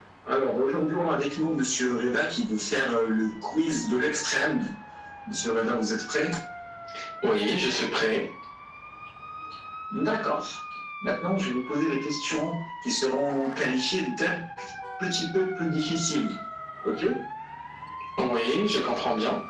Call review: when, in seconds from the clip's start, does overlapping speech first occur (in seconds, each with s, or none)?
none